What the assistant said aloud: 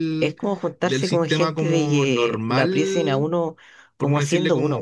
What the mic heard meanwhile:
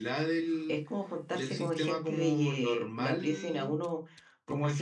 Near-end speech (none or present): none